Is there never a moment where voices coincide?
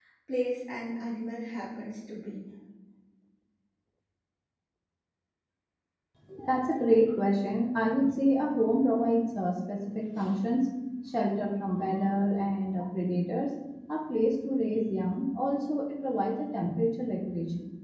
Yes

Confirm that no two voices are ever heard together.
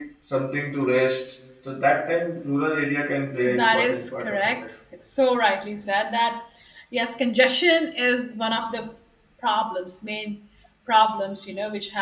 No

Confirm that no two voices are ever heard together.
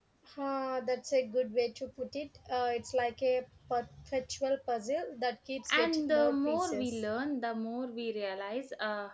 No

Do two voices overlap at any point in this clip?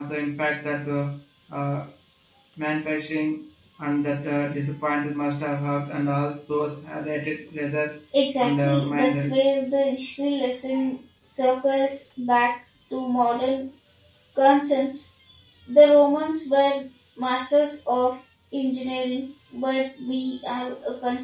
Yes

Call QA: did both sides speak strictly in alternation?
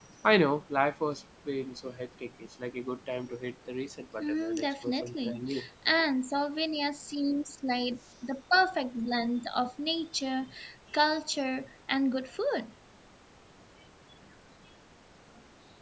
No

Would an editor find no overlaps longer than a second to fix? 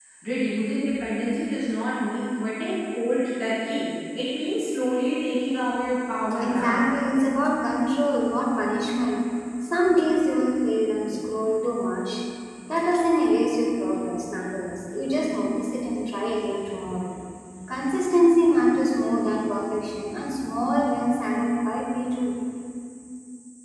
Yes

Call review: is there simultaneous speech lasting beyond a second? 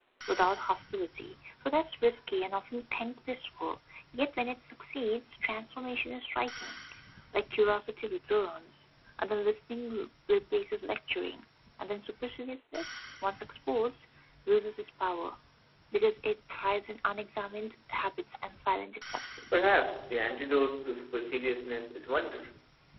No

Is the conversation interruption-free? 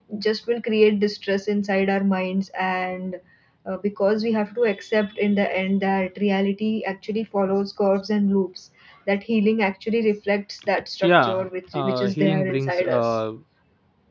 No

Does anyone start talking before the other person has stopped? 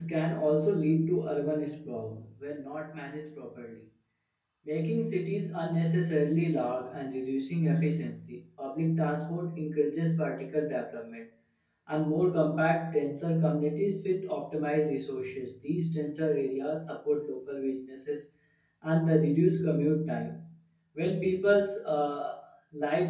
No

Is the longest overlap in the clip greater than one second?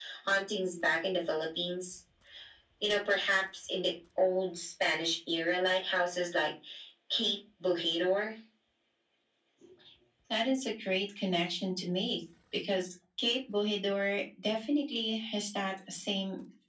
No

